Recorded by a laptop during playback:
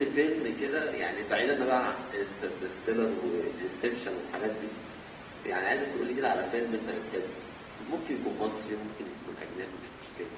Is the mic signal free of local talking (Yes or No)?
Yes